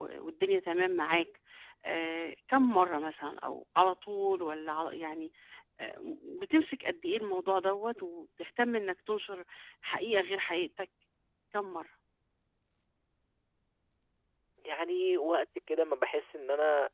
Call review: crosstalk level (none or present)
none